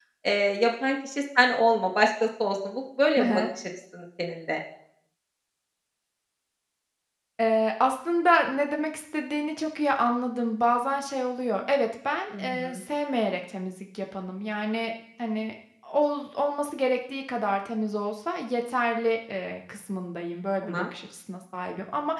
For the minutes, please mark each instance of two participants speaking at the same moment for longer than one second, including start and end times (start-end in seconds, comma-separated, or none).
none